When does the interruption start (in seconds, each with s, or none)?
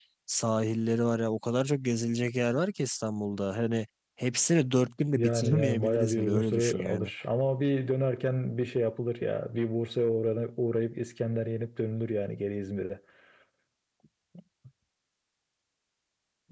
5.2 s